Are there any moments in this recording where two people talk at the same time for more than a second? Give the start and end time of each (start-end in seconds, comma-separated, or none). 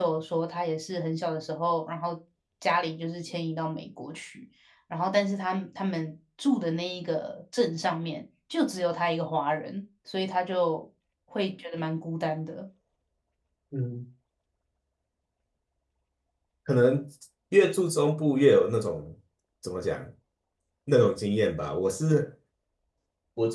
none